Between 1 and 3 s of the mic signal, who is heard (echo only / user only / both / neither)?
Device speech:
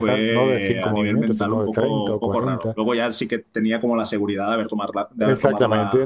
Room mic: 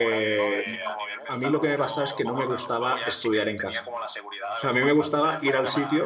both